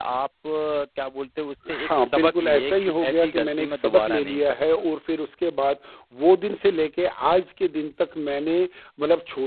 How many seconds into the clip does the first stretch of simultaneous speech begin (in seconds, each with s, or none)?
1.7 s